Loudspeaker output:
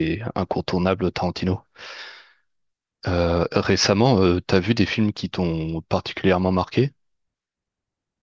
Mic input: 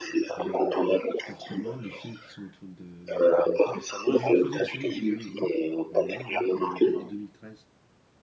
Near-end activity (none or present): present